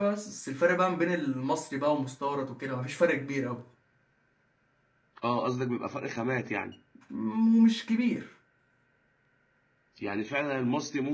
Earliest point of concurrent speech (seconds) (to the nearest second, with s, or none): none